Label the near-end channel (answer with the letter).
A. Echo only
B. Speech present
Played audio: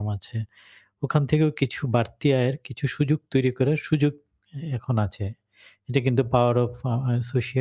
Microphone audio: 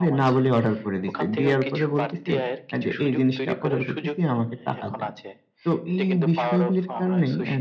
B